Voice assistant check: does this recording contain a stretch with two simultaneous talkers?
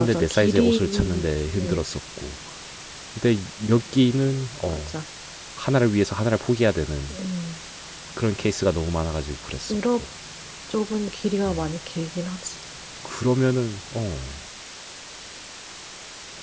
Yes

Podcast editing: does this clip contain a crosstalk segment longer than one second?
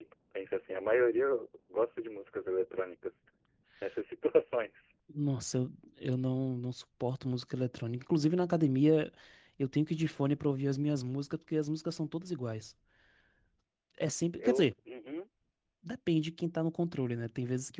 No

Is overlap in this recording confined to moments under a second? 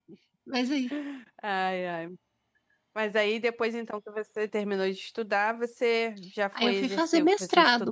No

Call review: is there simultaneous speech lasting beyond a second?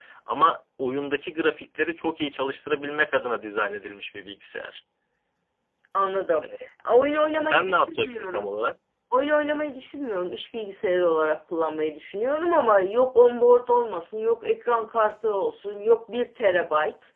Yes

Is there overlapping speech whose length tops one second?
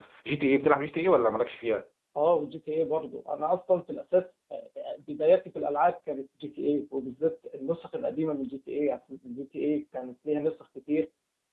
No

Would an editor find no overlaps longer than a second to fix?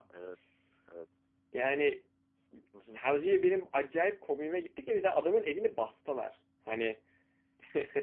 Yes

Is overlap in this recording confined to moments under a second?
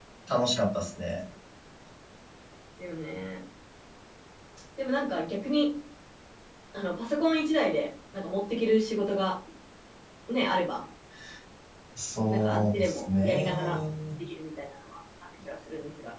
No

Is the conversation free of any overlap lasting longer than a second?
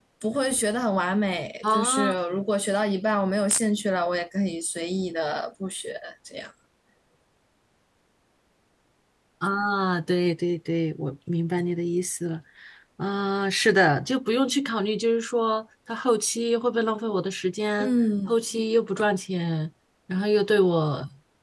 Yes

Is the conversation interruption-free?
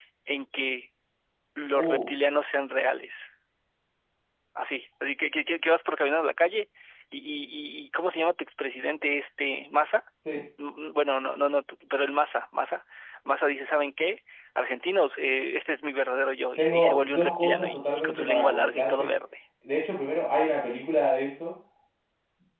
No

